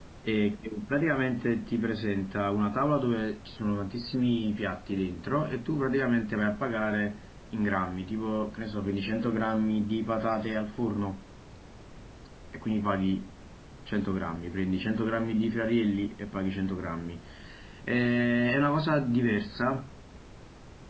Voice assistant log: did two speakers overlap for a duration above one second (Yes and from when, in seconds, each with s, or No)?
No